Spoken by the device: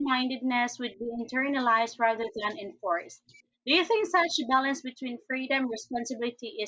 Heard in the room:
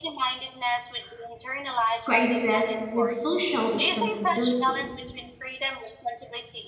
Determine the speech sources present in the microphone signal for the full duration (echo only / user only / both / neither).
both